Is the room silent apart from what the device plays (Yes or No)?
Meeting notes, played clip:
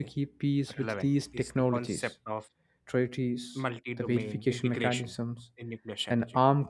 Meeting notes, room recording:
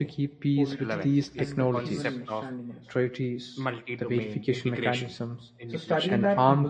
No